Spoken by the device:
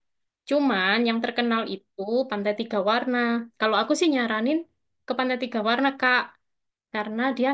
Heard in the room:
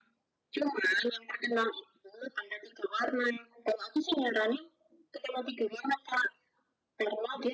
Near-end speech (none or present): none